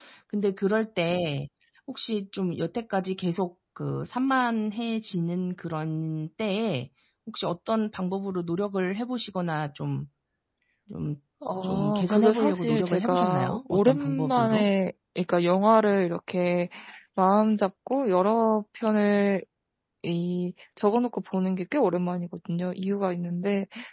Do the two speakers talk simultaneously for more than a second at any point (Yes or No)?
Yes